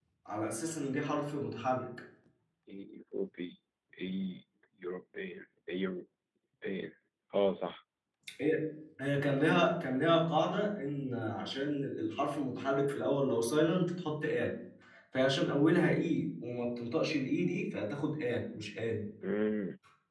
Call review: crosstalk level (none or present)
none